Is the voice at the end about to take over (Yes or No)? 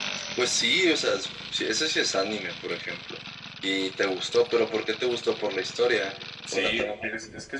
Yes